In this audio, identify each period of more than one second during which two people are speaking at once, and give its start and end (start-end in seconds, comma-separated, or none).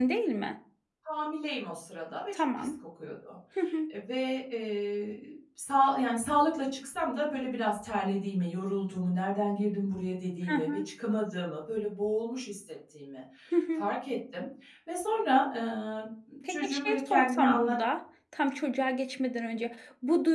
16.5-17.8